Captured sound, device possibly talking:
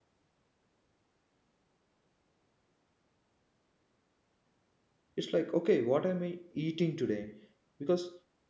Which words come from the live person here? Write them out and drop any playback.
it's like okay what am i eating today because

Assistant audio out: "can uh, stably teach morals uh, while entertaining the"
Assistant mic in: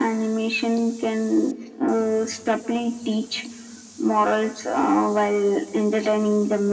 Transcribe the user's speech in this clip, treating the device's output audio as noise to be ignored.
none

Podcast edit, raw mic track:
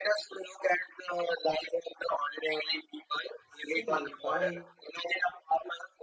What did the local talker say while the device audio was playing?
See, if I

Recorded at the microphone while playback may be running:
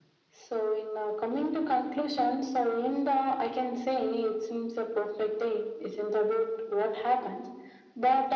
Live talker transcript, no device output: none

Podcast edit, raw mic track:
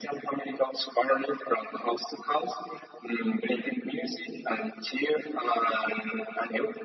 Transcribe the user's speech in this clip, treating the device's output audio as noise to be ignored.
none

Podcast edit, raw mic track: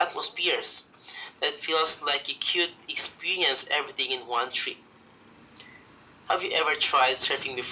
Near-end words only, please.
none

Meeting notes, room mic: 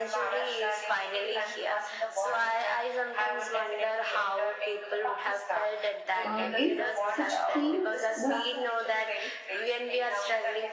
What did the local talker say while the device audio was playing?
uh, if such thing was

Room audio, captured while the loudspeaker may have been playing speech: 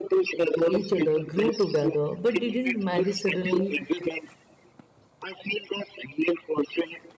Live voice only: each other, grew together, but didn't marry suddenly,

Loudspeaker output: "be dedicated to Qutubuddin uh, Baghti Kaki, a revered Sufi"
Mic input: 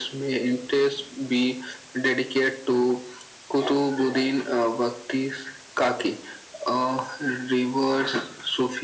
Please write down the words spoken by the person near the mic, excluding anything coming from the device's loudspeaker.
none

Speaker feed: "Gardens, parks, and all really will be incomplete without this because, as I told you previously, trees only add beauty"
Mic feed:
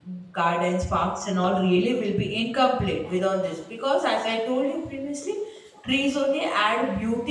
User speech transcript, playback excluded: none

